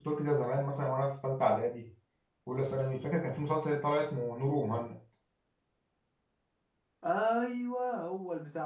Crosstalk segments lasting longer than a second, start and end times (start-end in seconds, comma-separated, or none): none